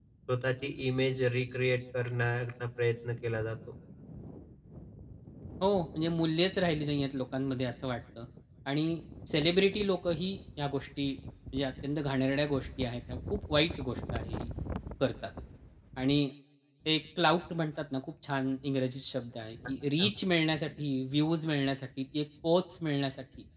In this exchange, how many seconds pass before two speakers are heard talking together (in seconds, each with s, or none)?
none